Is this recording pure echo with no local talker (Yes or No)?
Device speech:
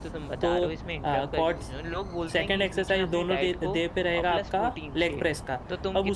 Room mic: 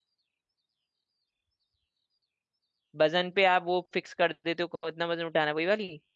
No